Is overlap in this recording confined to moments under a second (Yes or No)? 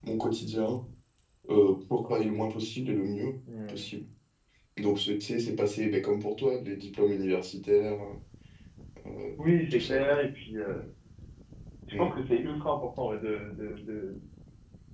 Yes